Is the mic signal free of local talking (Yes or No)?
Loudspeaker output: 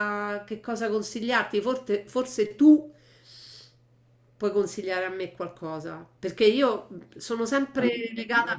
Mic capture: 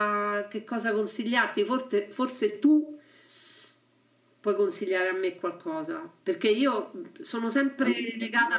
Yes